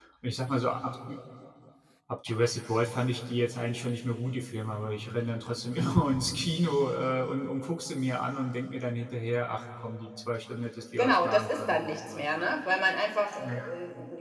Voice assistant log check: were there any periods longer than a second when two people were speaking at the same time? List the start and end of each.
11.0-12.2

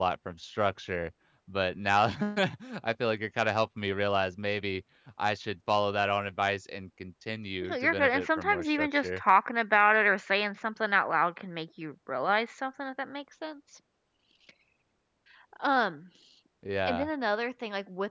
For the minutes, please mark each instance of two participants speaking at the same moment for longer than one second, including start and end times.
7.6-9.2

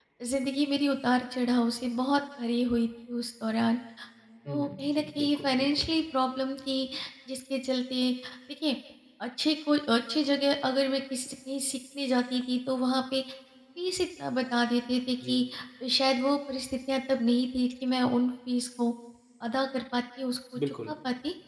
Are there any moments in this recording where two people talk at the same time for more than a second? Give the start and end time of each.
4.5-5.9

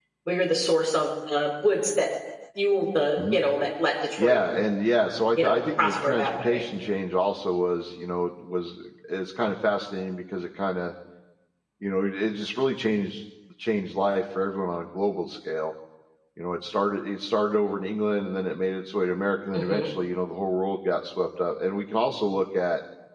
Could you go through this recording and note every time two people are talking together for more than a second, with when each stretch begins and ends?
5.4-6.6

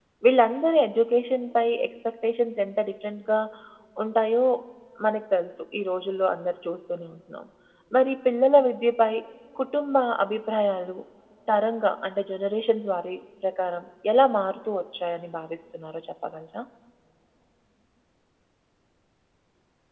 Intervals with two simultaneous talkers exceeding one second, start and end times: none

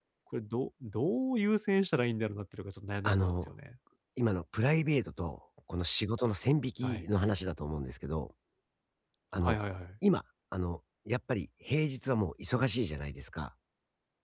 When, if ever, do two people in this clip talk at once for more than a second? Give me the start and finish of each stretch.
none

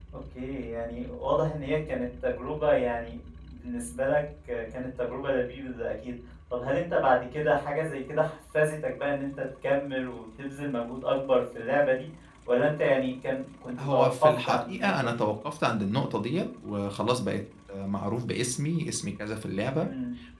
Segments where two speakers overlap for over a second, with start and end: 13.9-15.2

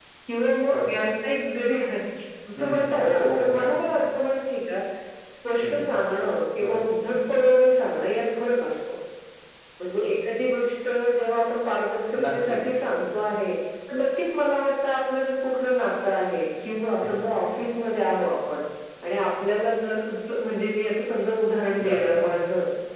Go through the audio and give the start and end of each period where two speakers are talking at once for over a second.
2.6-4.0

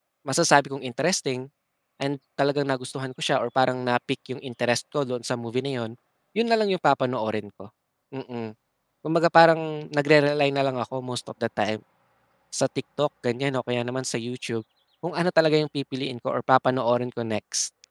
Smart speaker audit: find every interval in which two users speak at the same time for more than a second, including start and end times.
none

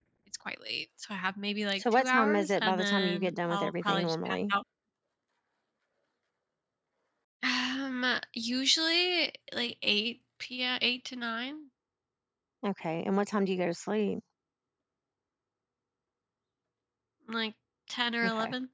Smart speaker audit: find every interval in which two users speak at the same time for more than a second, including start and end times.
1.8-4.5

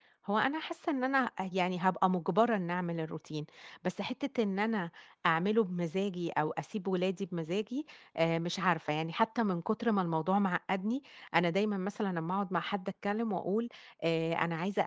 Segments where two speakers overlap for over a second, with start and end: none

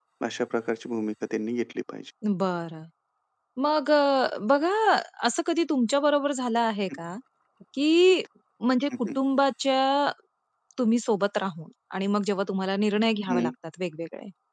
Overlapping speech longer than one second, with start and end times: none

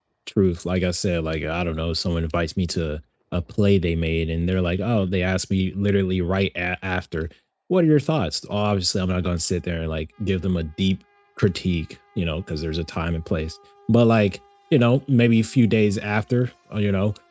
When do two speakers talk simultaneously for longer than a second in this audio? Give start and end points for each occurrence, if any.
none

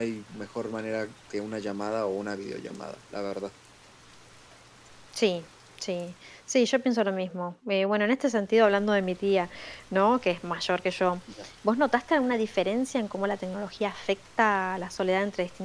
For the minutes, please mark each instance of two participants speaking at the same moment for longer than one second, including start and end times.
none

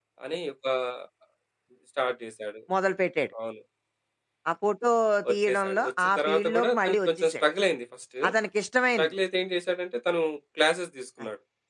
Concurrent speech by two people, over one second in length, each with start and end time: 5.3-7.4

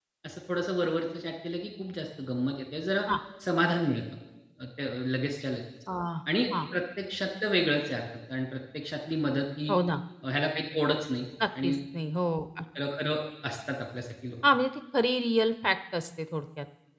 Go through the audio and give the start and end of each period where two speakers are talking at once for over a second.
none

